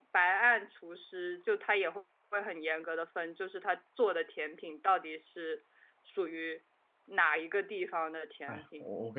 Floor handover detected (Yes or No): Yes